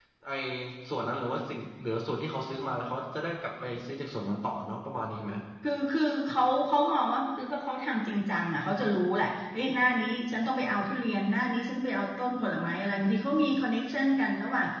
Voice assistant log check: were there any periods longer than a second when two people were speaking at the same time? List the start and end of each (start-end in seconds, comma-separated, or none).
none